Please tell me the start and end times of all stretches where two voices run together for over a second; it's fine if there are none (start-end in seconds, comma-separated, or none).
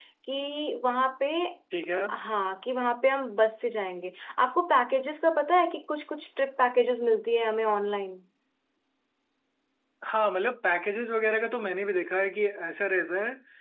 none